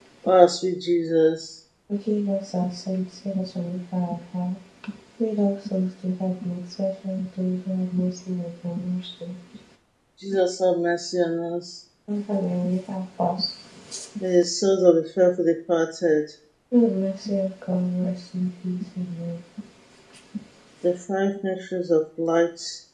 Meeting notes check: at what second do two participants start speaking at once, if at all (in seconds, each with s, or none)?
none